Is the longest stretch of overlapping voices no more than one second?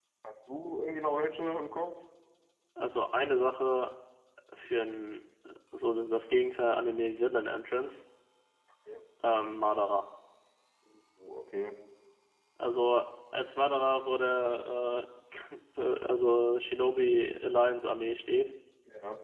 Yes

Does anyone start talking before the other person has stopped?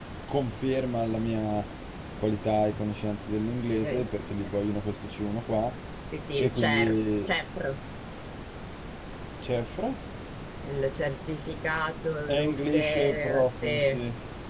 Yes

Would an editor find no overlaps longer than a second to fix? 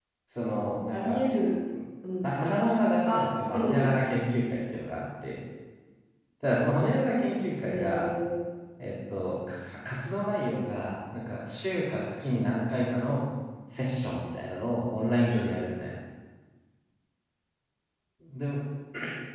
Yes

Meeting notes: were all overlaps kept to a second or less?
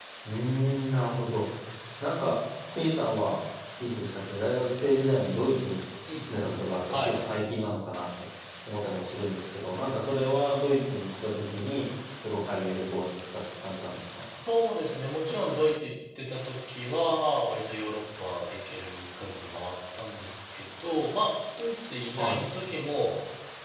Yes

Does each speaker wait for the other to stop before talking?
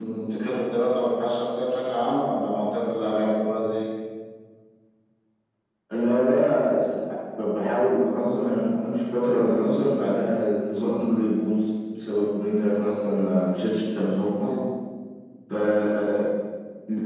Yes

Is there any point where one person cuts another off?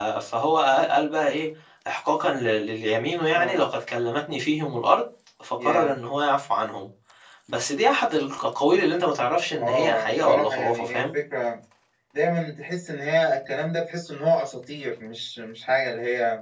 Yes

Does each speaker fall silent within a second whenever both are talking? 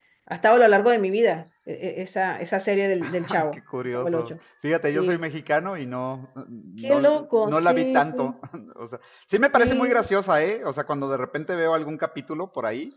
No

